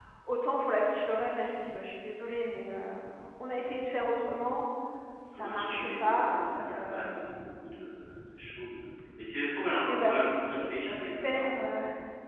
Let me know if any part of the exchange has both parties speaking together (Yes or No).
Yes